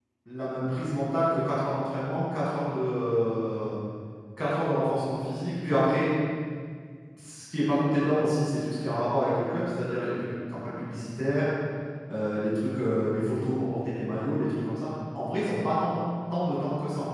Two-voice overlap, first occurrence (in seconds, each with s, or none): none